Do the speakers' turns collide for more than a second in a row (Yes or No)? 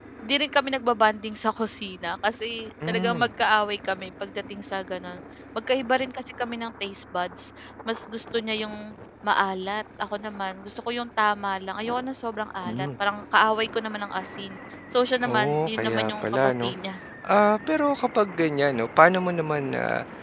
Yes